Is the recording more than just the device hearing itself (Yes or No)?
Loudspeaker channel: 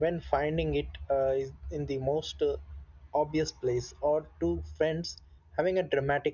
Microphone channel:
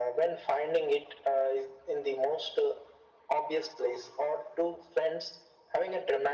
No